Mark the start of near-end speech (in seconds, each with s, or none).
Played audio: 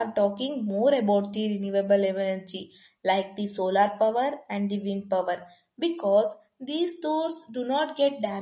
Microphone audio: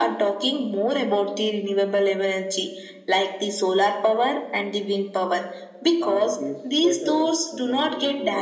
6.0 s